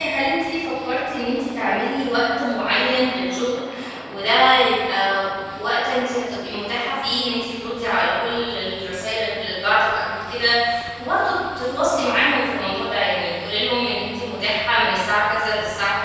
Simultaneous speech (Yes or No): No